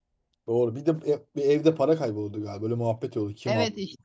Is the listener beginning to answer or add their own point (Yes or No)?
Yes